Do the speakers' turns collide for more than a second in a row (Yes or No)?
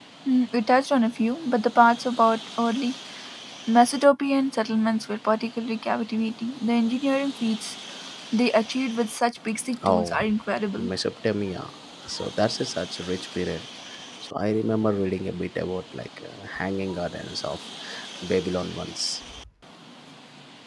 No